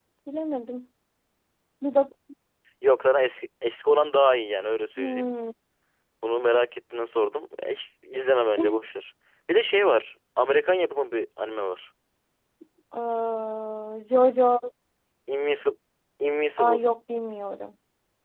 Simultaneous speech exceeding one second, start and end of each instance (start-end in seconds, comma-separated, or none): none